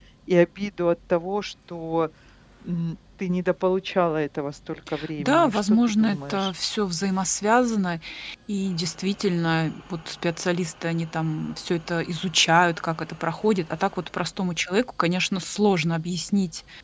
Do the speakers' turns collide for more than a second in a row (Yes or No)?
Yes